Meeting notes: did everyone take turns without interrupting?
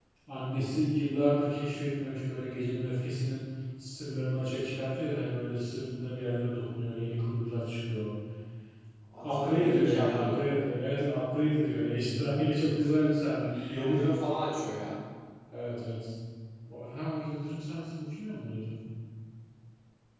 No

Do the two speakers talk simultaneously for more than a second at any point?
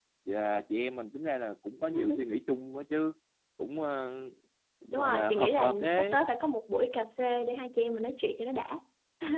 Yes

